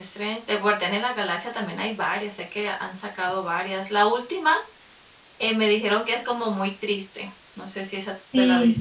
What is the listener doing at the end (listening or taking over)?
taking over